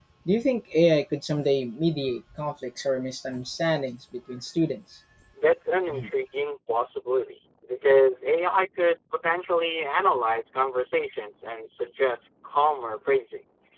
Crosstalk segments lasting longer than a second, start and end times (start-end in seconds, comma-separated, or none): none